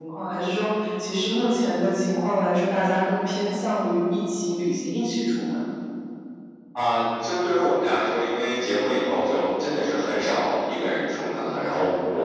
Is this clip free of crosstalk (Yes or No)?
Yes